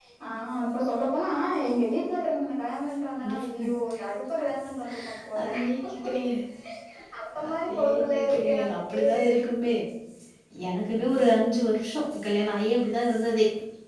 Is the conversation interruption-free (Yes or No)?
No